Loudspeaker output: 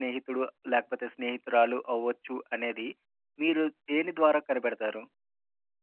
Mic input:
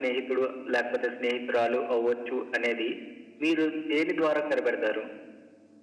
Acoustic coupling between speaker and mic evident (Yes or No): Yes